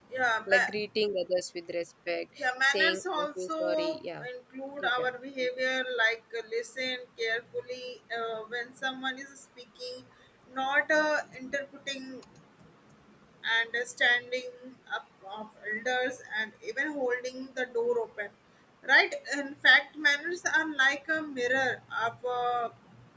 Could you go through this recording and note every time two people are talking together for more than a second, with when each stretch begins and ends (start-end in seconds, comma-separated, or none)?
2.4-4.2